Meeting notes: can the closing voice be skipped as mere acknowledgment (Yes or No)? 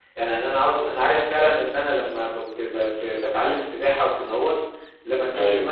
Yes